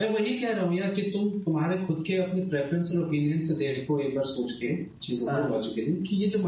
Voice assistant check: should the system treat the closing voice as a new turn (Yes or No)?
No